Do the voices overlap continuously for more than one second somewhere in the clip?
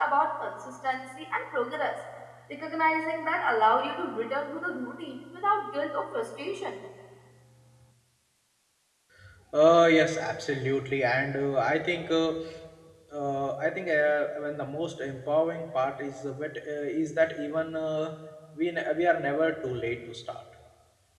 No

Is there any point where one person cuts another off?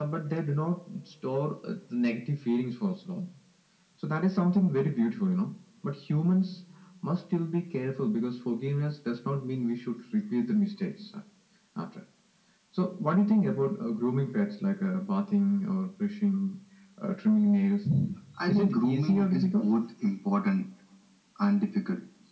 Yes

